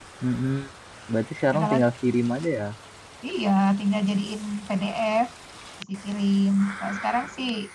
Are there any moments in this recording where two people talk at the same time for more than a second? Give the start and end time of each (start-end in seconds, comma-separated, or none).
none